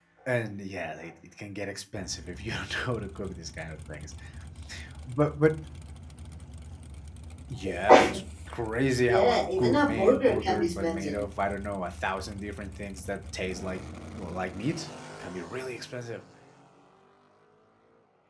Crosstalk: present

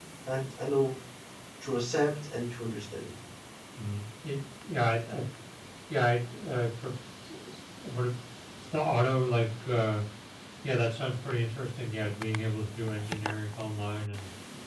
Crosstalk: none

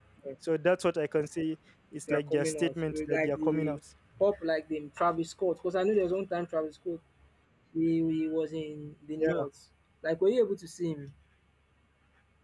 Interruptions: present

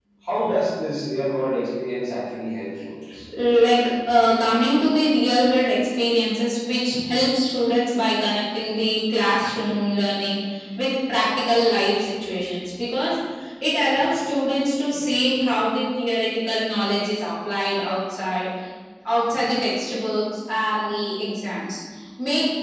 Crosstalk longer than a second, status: none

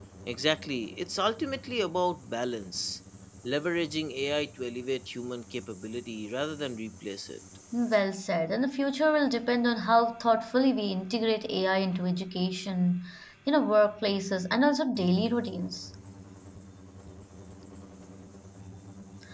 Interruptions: none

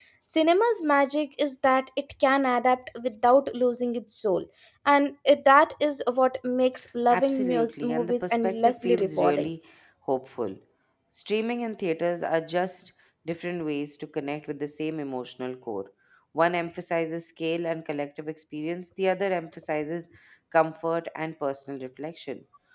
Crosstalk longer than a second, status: present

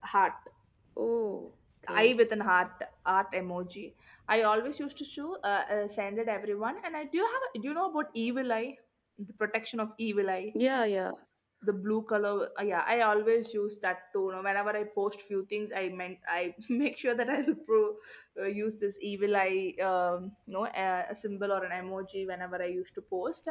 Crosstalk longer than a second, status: none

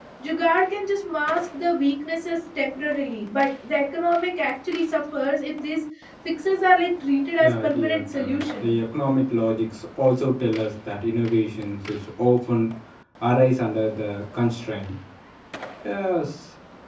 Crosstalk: present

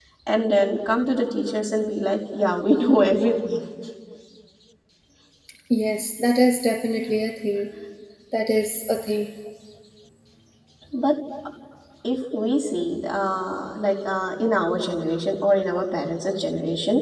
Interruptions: none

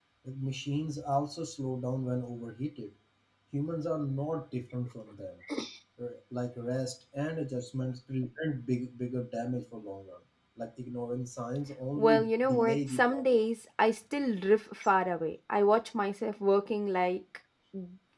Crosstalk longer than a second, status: present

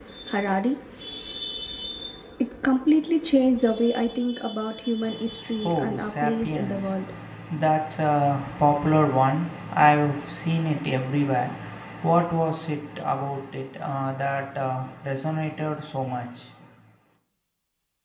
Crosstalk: present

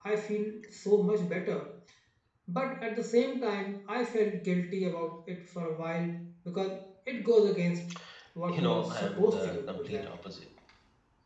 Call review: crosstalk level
present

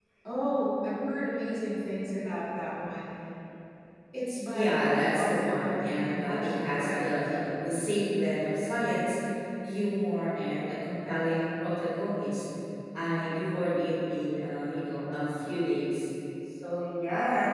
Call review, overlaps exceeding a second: present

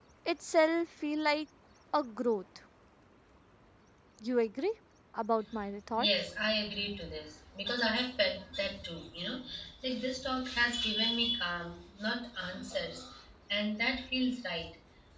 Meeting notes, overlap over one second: none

